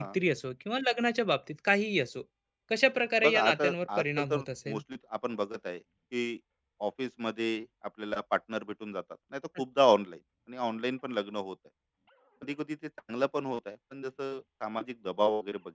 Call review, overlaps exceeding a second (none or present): present